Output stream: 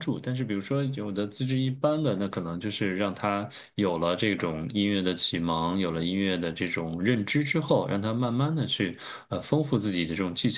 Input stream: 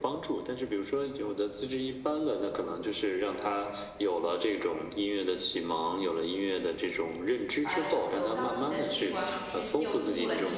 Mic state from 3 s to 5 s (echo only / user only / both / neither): echo only